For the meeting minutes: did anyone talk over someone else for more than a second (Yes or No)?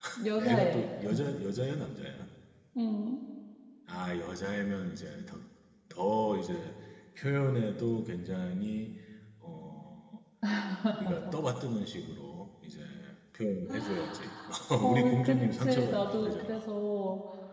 Yes